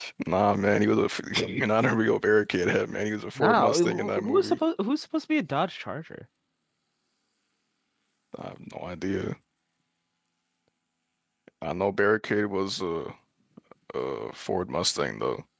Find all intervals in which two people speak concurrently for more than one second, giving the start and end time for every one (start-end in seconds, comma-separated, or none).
3.4-4.6